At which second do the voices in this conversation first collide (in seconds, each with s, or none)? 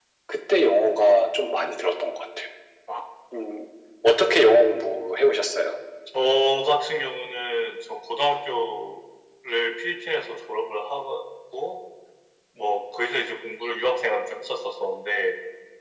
none